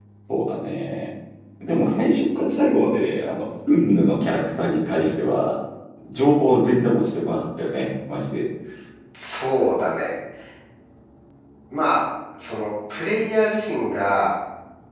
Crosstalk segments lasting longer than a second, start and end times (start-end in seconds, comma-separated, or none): none